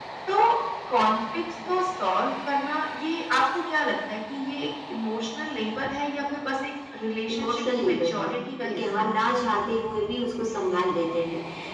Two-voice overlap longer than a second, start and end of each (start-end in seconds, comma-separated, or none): 7.3-9.2